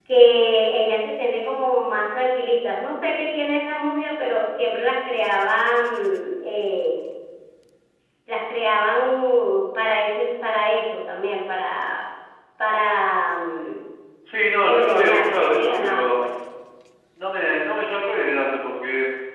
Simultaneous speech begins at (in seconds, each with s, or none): 14.7 s